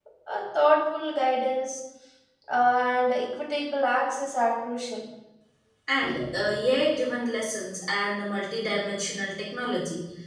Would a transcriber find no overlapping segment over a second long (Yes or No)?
Yes